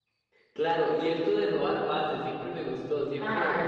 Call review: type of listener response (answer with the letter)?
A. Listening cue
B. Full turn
B